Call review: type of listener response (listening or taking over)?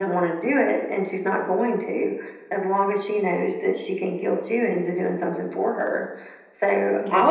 listening